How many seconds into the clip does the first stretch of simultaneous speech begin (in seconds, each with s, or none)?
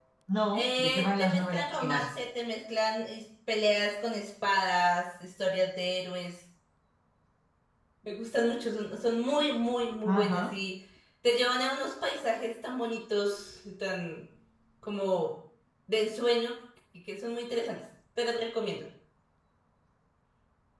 0.5 s